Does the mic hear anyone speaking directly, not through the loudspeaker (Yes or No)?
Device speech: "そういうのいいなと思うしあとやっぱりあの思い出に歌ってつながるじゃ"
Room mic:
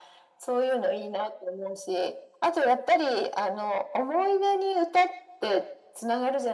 No